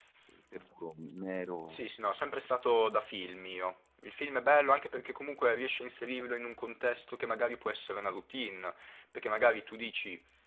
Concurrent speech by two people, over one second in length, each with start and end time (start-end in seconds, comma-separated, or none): none